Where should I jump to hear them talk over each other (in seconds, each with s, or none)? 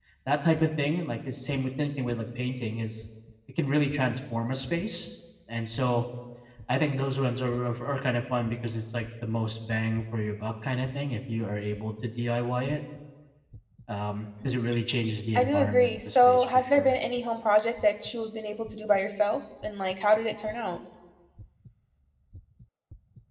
15.3 s